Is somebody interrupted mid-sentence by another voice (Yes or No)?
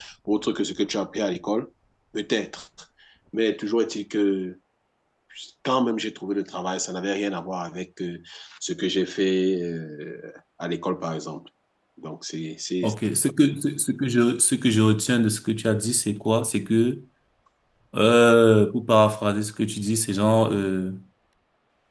No